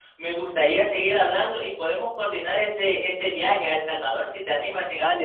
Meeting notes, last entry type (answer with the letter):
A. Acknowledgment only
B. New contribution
B